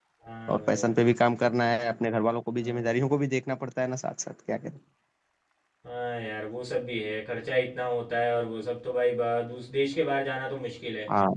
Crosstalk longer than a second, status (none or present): none